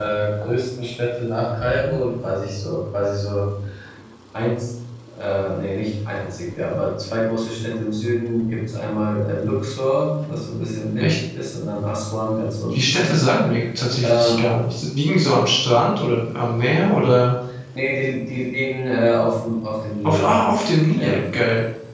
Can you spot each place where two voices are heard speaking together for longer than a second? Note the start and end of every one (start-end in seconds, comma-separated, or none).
none